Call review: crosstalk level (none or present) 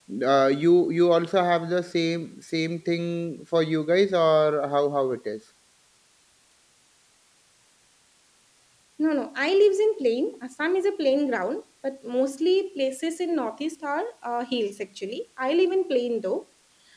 none